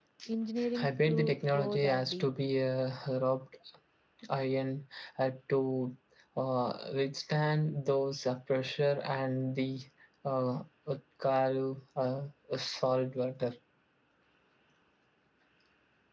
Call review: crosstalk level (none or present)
present